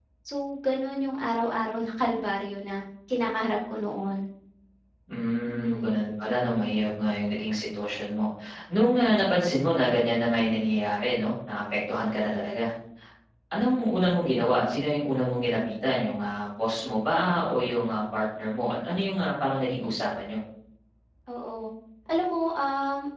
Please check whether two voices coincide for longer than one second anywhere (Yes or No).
No